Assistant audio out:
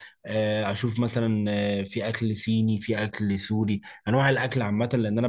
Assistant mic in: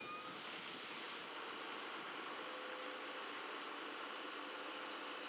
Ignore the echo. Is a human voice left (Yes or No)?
No